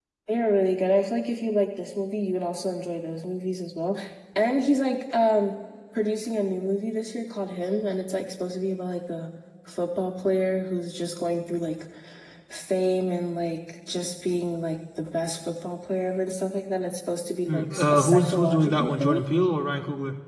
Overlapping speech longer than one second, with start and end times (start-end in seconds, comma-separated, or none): 17.5-19.2